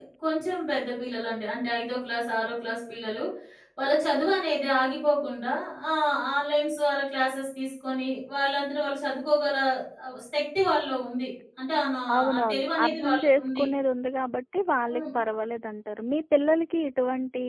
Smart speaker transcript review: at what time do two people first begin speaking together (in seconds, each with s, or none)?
12.1 s